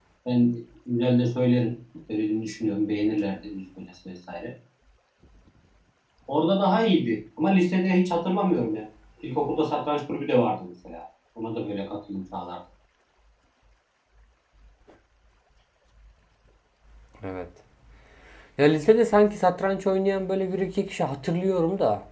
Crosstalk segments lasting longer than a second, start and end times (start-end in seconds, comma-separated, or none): none